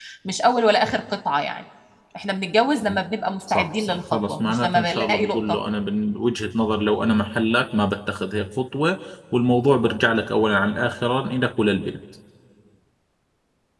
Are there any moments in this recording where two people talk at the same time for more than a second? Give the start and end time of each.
3.5-5.6

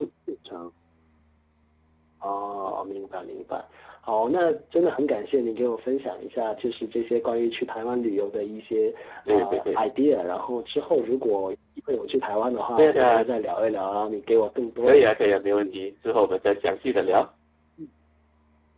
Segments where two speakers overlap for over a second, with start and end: none

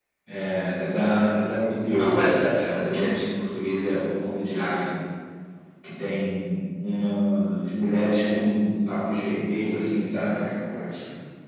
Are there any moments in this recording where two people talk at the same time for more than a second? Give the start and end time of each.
1.9-3.1

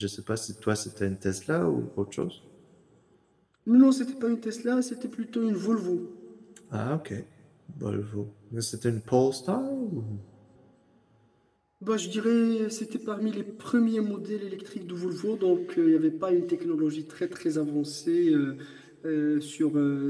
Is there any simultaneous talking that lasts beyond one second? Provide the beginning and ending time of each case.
none

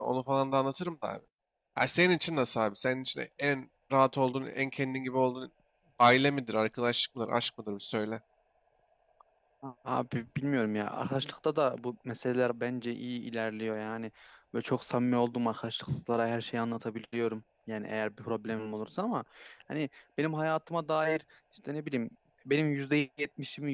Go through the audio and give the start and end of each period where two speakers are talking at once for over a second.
none

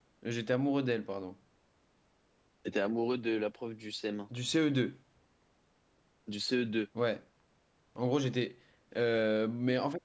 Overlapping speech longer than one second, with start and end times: none

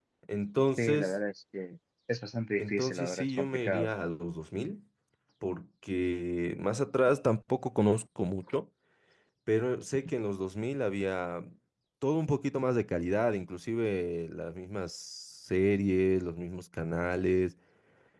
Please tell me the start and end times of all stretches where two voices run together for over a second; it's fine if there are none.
2.6-3.9

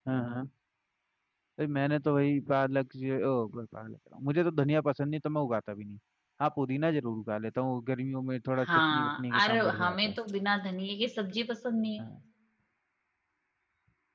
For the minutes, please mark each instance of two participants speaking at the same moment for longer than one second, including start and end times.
8.6-10.2

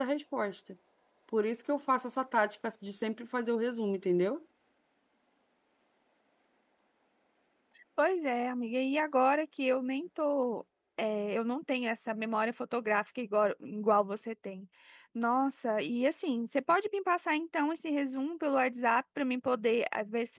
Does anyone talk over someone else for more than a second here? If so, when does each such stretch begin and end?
none

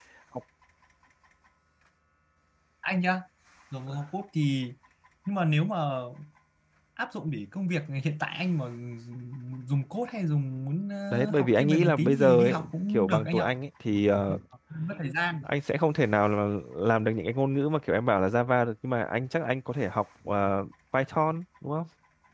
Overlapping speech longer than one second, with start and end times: 11.1-13.5

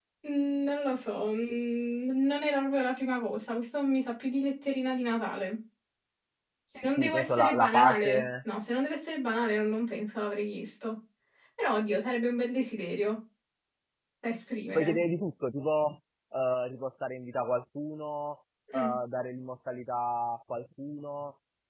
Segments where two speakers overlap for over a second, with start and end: 7.0-8.2

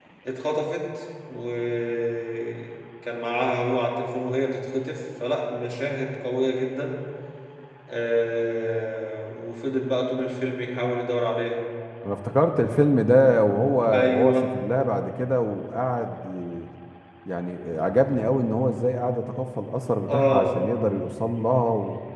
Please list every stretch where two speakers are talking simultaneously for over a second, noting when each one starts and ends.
none

